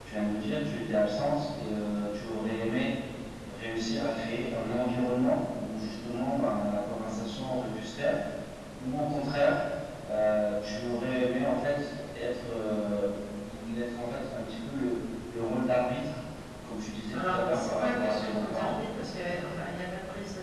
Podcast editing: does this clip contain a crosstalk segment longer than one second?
Yes, from 17.1 s

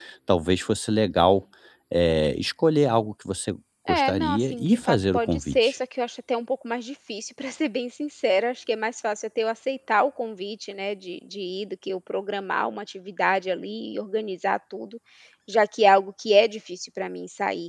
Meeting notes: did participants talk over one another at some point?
Yes, from 3.9 s

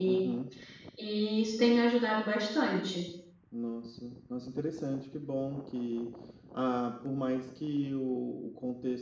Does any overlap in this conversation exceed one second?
No

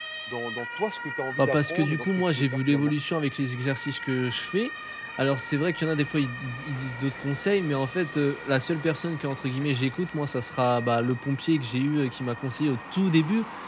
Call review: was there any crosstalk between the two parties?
Yes, from 1.4 s

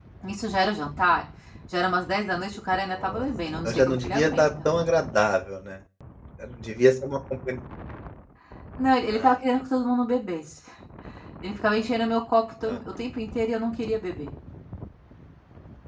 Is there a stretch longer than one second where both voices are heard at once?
Yes, from 2.9 s

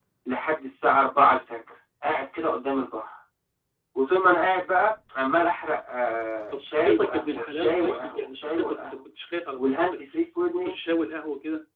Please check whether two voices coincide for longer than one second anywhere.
Yes, from 6.5 s

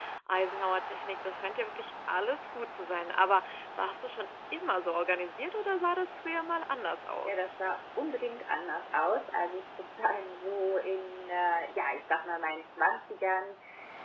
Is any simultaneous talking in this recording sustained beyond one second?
No

